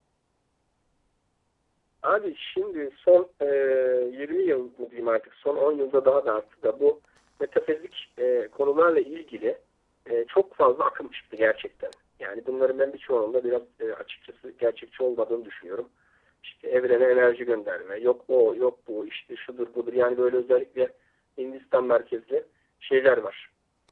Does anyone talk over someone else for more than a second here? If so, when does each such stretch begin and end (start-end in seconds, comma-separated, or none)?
none